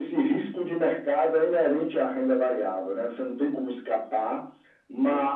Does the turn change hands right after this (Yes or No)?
No